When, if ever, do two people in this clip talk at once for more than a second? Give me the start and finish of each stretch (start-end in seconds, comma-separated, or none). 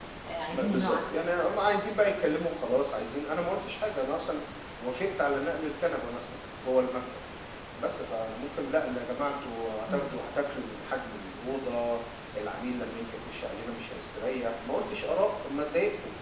0.5-1.8